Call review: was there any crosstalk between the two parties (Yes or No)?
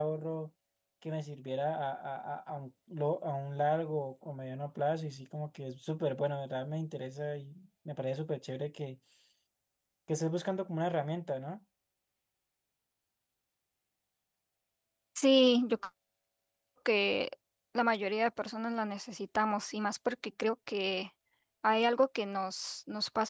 No